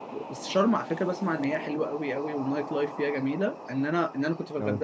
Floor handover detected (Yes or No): No